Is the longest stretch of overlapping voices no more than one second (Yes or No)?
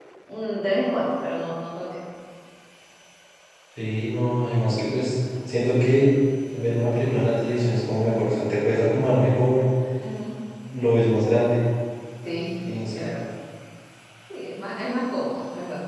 Yes